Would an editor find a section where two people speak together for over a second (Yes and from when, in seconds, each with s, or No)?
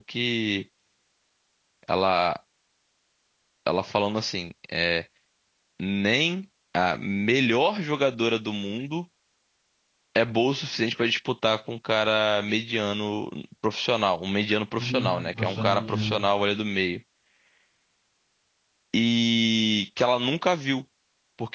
Yes, from 14.7 s